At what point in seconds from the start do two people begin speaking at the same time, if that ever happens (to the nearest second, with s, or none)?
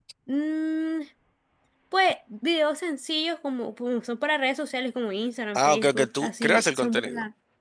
6 s